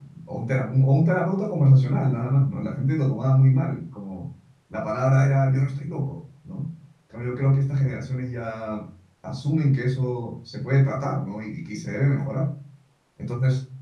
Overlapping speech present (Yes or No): No